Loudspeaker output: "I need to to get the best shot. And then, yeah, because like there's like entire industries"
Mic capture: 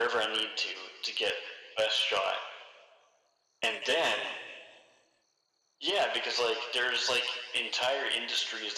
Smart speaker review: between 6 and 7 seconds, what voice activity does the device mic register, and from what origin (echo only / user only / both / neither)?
echo only